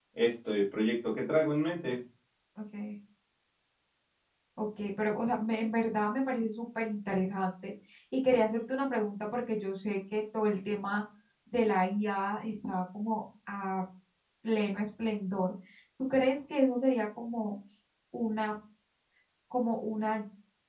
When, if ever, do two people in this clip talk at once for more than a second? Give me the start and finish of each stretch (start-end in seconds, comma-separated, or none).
none